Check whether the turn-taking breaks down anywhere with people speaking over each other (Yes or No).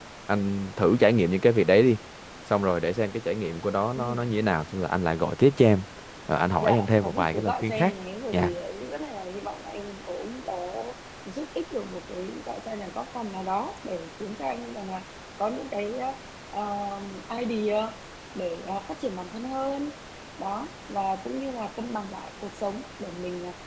Yes